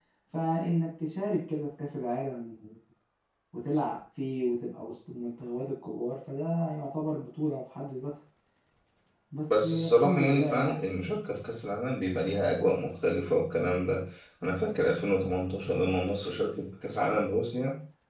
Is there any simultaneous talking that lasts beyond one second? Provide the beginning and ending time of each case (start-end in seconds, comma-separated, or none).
9.5-10.8